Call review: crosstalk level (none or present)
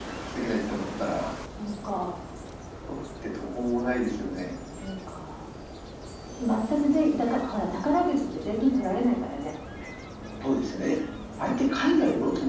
none